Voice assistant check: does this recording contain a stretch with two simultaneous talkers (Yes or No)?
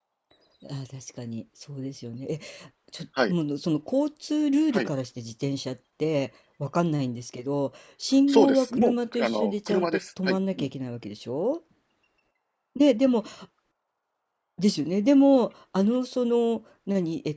Yes